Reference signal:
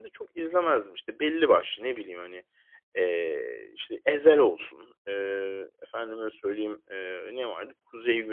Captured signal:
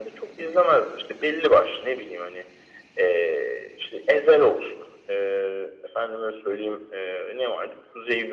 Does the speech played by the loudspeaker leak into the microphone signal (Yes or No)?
Yes